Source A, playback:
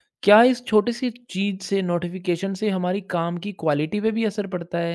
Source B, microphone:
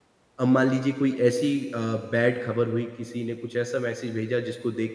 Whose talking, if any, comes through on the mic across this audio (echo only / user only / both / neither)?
user only